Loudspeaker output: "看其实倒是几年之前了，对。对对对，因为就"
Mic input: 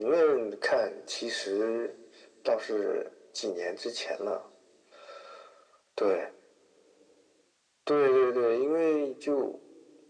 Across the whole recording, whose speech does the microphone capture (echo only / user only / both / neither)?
echo only